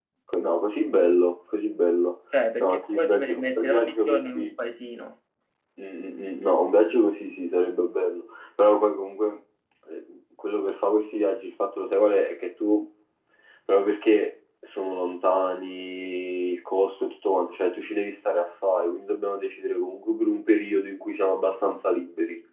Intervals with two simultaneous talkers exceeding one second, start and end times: 2.6-4.5

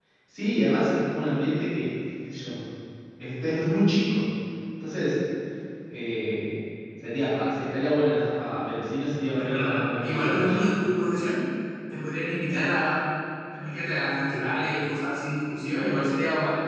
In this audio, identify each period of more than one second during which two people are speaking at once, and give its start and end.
9.3-10.6

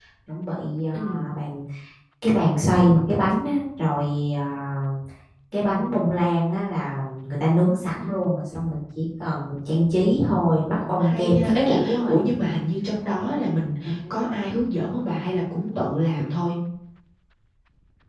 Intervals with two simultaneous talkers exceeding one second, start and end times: 10.0-12.1

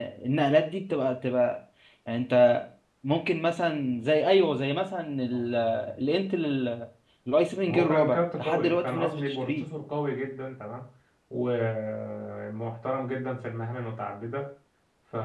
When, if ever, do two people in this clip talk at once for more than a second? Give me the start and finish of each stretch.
7.7-9.6

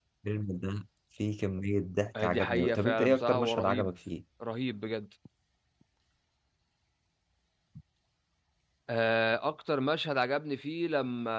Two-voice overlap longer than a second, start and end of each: 2.2-3.9

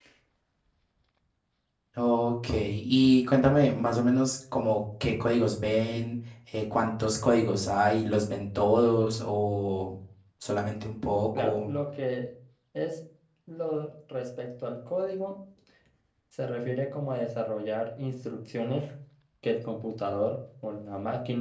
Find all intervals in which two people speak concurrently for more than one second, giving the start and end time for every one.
none

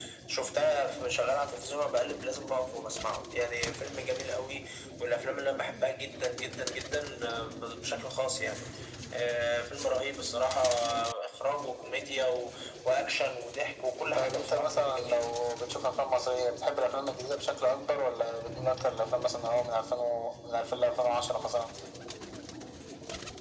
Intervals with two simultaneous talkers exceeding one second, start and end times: 14.2-15.4

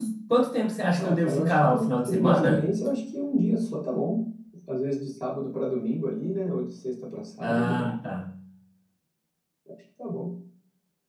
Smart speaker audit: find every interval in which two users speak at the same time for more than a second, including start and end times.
1.0-2.6

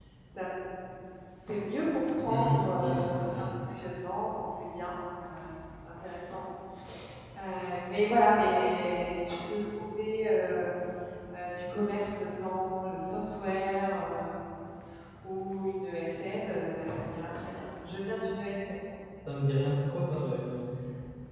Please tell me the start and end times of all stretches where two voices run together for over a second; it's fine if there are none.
2.2-3.5

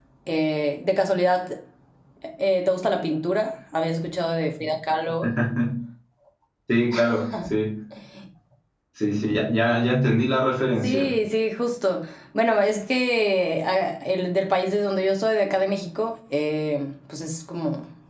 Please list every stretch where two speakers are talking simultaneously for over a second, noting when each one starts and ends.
none

